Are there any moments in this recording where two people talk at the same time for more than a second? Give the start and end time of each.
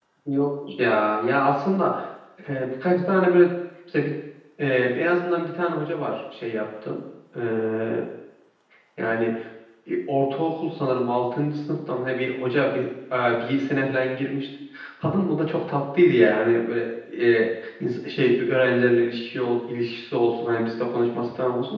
none

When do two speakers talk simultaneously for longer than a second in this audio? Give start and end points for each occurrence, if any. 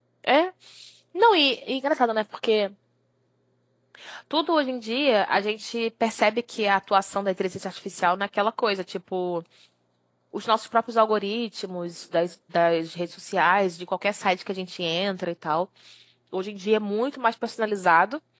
none

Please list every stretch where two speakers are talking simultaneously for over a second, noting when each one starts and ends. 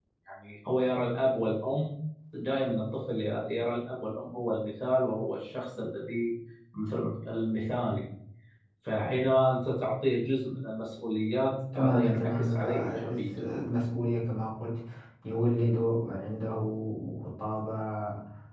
11.7-13.2

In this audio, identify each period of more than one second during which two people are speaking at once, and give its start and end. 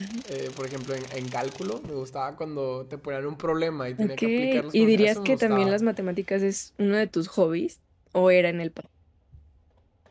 4.0-5.8

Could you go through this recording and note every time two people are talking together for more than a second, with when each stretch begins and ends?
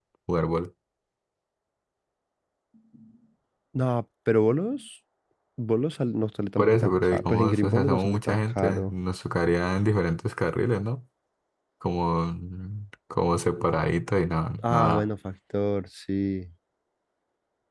6.6-8.9

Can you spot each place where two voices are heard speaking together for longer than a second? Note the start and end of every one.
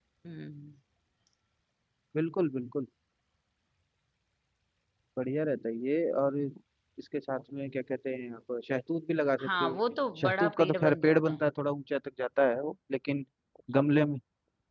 10.2-11.4

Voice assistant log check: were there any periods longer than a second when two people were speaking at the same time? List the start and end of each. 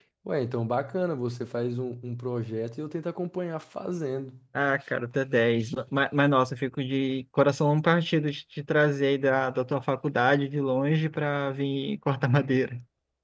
none

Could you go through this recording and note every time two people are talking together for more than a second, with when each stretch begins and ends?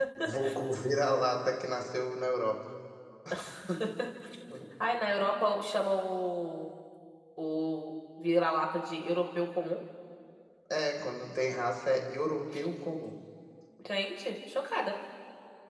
none

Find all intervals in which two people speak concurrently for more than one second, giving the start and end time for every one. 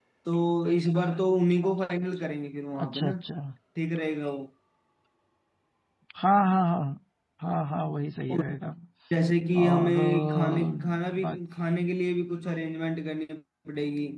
9.6-11.4

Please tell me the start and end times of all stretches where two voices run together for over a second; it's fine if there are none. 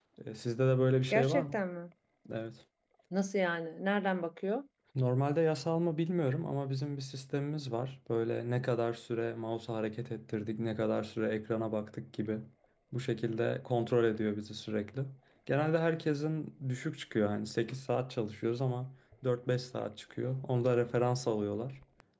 none

